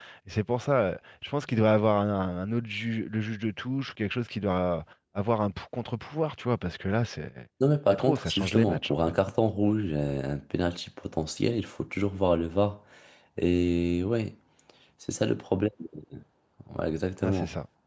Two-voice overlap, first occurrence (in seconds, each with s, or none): 7.9 s